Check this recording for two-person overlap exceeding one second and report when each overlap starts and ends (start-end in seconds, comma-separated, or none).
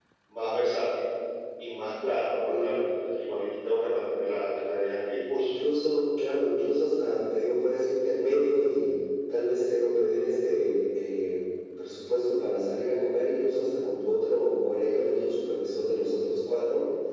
none